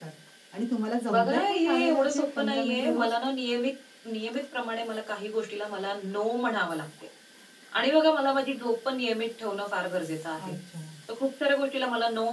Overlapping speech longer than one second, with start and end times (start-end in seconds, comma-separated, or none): 1.1-3.1